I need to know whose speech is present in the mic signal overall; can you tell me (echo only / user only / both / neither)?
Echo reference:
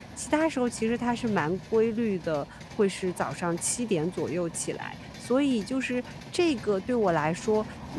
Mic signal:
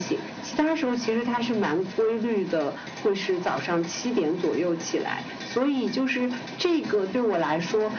echo only